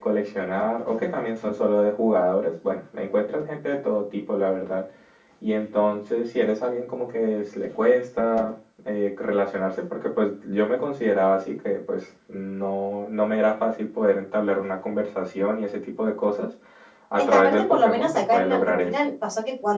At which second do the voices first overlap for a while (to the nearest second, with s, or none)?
17 s